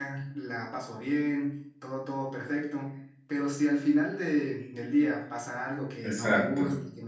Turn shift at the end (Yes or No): No